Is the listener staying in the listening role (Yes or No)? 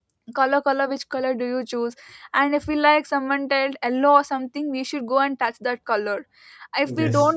Yes